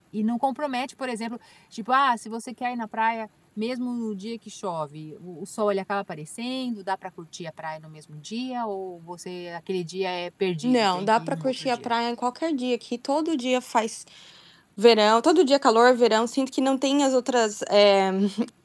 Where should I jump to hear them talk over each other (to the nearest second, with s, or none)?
11 s